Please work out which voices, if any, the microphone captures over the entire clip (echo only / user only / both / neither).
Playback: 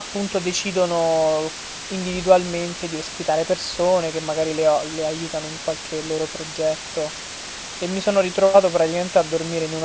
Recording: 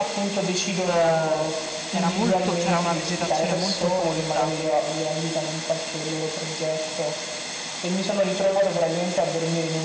both